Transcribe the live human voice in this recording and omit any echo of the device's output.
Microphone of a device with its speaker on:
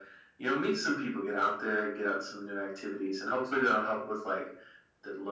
none

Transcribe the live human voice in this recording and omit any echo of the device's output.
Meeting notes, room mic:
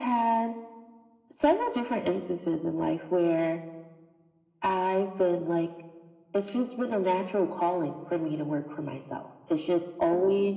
none

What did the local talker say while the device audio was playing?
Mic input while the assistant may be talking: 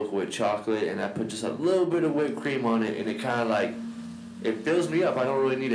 none

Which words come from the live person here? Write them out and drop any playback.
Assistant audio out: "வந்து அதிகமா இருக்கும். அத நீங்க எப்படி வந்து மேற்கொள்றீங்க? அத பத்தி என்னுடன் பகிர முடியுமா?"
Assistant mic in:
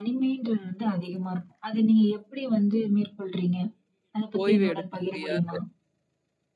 ஓய்வு எடுக்க முடியாது.

